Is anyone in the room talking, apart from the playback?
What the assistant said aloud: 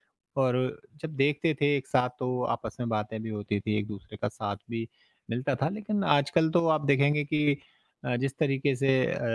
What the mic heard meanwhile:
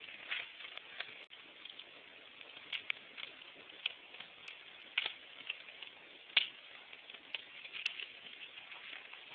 No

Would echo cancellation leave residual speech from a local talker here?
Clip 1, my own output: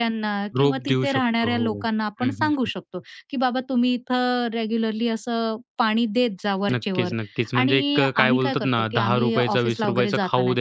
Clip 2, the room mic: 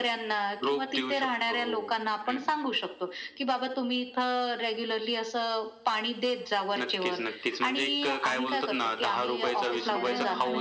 Yes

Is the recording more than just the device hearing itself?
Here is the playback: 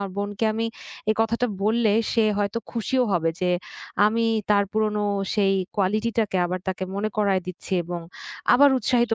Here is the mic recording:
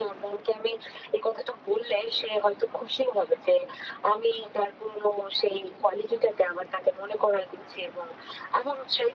No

